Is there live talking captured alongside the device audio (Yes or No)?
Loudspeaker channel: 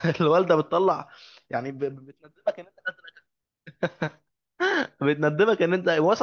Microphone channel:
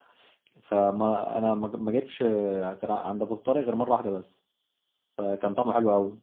Yes